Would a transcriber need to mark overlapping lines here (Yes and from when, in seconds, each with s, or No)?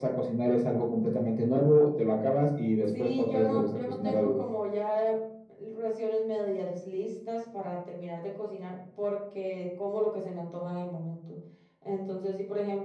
Yes, from 2.8 s